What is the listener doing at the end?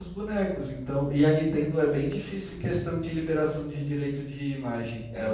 taking over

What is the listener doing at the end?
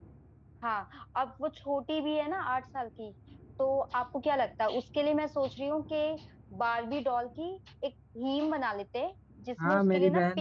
taking over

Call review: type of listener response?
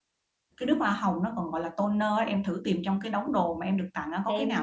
taking over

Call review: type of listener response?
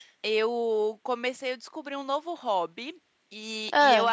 listening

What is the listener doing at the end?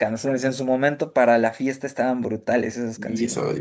taking over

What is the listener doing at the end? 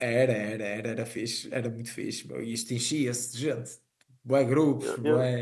taking over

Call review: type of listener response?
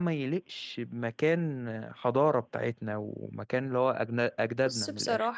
taking over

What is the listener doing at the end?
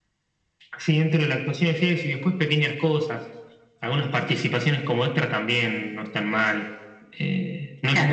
taking over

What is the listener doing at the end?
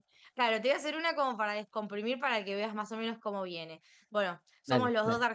listening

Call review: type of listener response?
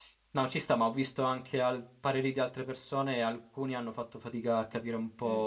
listening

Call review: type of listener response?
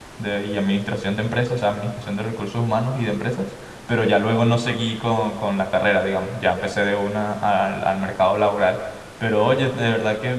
listening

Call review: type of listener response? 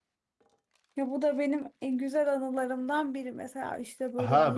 taking over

